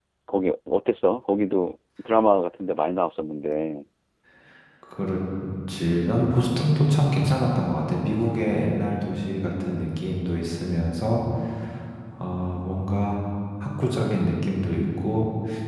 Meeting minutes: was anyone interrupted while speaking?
No

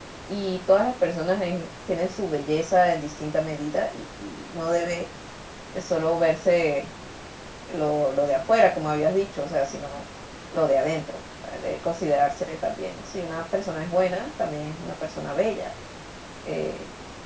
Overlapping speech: No

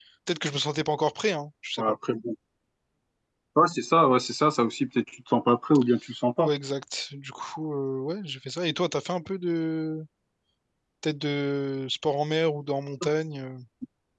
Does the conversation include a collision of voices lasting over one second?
No

